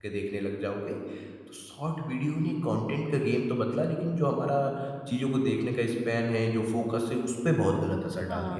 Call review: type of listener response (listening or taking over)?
taking over